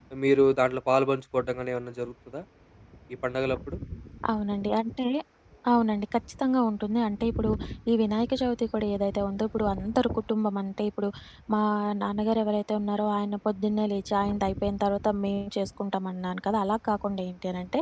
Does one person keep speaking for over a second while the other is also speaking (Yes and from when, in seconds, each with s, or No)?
No